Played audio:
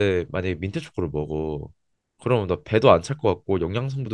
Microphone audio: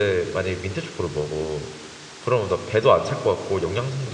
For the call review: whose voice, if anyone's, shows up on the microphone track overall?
echo only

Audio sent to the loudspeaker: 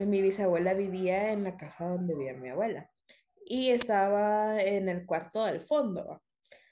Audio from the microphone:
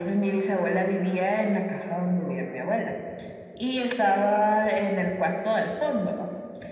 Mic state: echo only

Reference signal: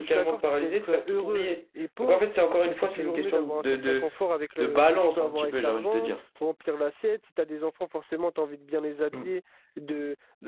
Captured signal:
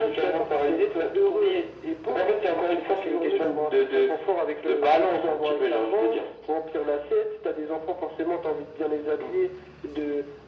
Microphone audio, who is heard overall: echo only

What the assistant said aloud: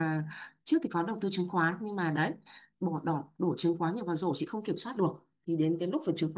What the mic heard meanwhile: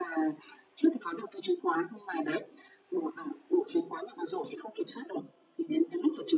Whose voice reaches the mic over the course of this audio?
echo only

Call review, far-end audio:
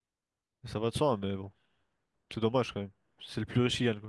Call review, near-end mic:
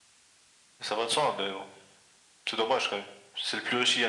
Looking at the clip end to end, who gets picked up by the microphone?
echo only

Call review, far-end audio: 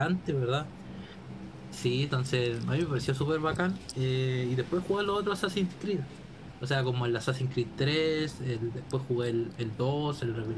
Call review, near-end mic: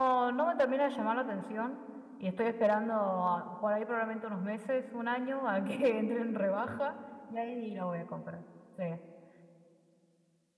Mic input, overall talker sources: user only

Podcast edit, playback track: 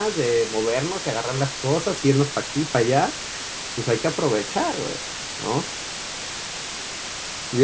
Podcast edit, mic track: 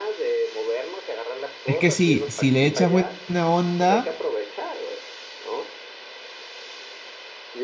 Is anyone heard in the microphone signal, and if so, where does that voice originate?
both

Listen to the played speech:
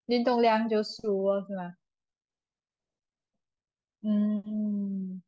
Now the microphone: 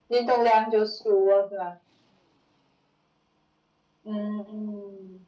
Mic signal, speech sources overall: echo only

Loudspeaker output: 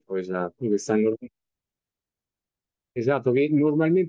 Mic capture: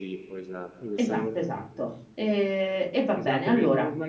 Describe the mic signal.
both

